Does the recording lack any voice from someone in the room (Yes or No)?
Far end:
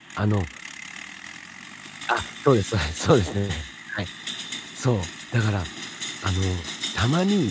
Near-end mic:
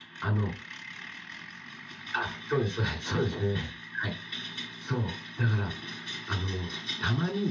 Yes